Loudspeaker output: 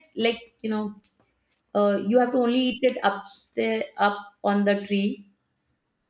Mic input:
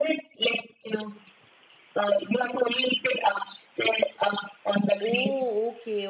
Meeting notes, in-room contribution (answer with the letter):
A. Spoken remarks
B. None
A